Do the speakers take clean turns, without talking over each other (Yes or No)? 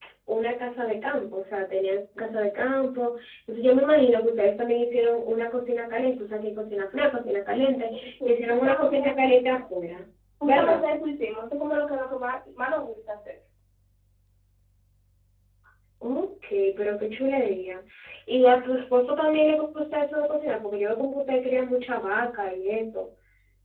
No